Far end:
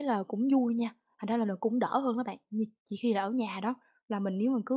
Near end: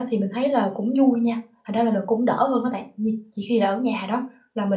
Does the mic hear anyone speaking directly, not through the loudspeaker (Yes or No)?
No